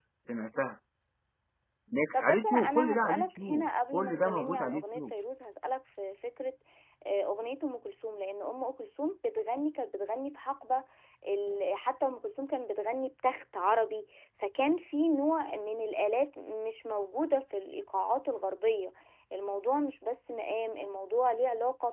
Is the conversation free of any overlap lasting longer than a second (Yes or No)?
No